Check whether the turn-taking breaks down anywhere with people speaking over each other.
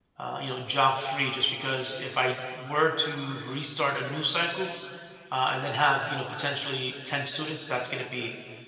No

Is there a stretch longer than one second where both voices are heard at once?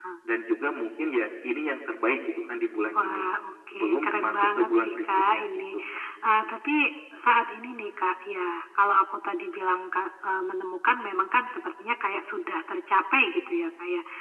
Yes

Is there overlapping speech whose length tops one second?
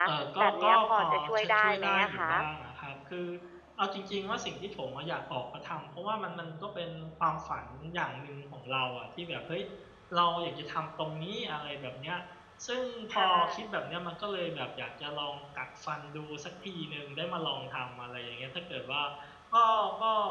Yes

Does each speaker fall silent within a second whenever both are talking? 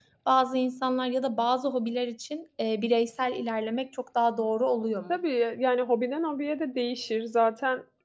Yes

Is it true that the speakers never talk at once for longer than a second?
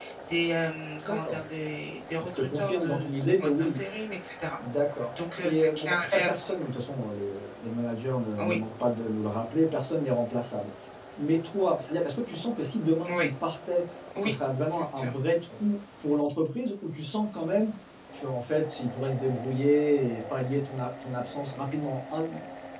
No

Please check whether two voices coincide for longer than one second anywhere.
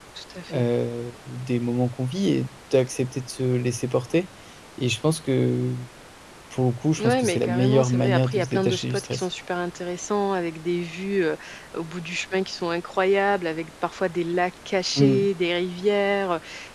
Yes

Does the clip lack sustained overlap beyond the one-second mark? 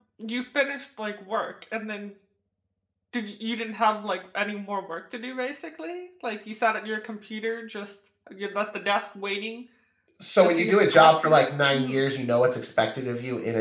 No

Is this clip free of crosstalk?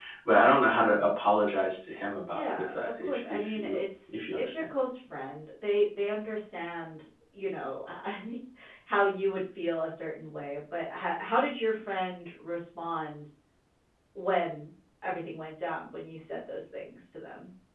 No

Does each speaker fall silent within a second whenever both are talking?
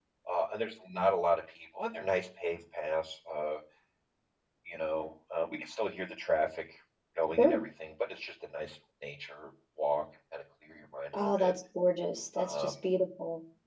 Yes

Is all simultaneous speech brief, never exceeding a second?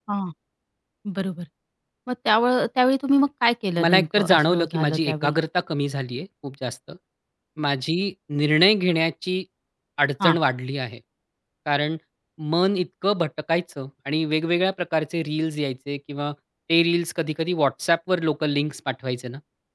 No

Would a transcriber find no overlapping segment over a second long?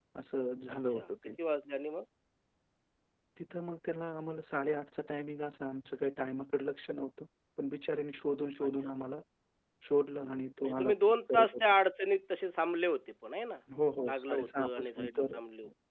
No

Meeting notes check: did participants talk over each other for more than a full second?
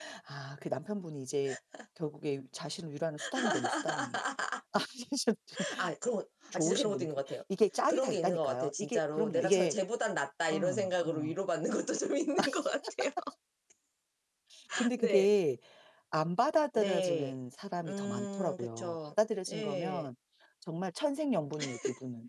Yes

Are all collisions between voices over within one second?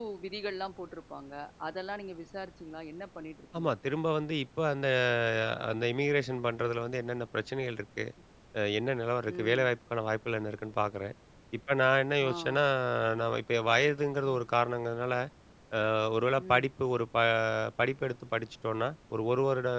Yes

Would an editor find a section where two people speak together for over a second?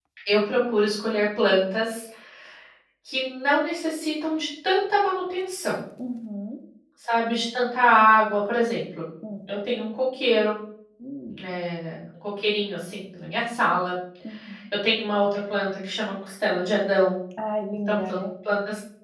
No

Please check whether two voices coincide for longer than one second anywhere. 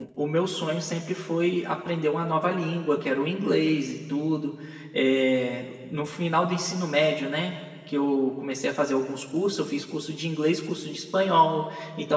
No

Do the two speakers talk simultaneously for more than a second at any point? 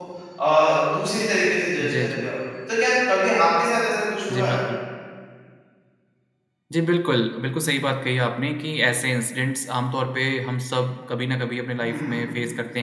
No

